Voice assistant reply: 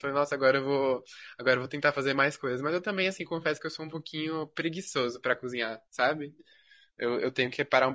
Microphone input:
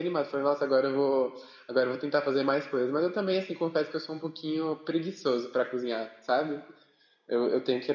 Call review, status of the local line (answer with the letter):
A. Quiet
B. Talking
A